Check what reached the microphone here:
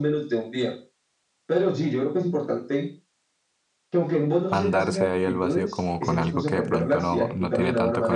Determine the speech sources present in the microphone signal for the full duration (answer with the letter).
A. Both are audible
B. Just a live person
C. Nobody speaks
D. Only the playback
A